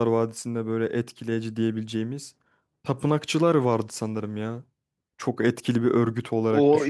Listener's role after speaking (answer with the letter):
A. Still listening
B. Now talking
B